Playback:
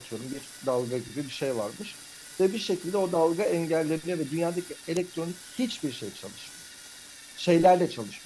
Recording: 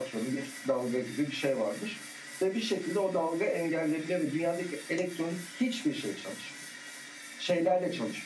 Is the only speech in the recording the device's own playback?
Yes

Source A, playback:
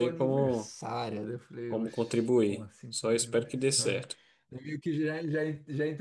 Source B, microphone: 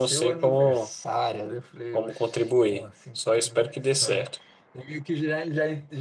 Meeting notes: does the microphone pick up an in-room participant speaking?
No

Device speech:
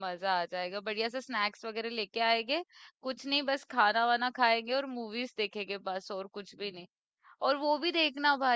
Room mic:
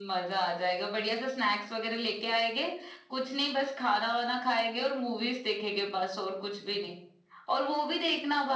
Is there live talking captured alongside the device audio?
No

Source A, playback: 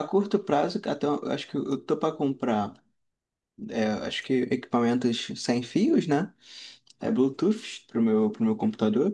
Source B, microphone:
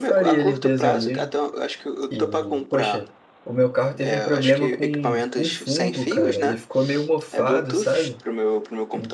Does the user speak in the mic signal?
Yes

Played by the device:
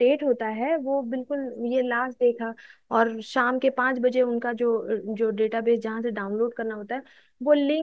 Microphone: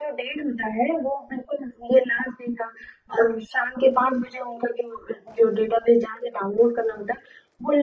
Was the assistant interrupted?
No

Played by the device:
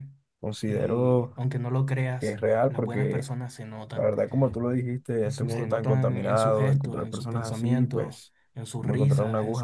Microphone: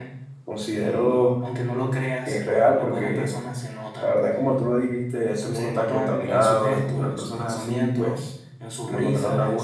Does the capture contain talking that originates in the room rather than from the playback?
No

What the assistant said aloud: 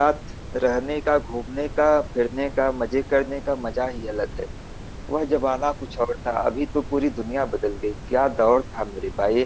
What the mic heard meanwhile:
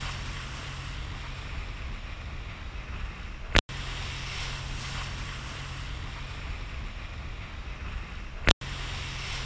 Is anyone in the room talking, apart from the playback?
No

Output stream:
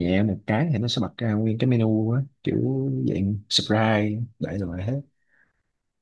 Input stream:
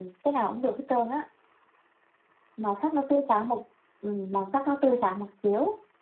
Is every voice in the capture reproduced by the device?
No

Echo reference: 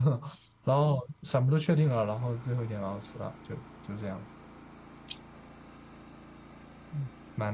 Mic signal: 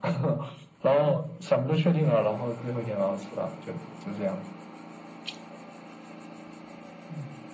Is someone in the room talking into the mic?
No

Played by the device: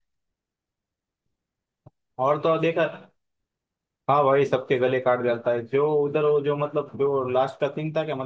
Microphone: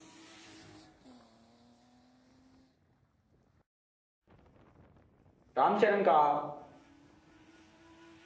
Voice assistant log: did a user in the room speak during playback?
Yes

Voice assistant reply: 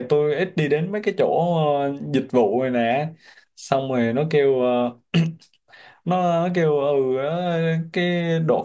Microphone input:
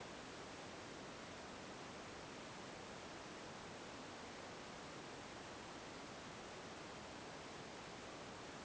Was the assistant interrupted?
No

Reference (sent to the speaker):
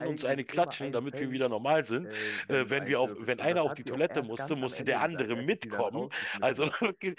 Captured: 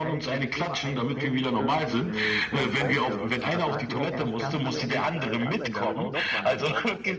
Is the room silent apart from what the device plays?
No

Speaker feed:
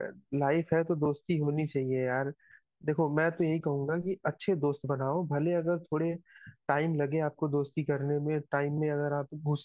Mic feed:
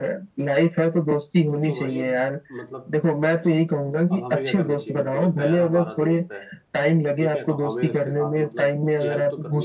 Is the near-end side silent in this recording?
No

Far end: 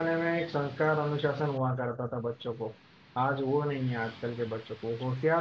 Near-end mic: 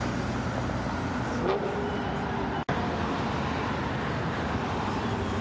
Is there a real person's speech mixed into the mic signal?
No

